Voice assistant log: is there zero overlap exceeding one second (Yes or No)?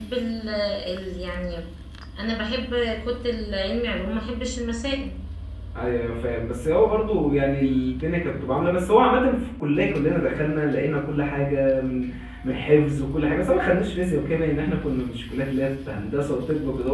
Yes